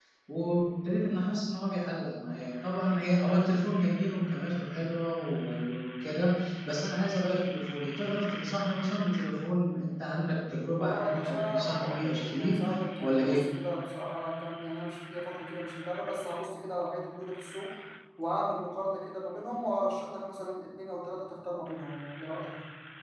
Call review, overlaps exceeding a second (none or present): present